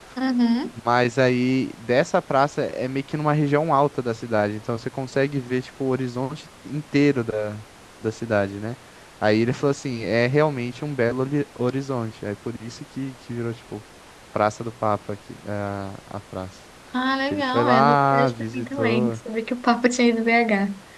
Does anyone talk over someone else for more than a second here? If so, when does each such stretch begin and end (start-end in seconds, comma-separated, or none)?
17.3-19.1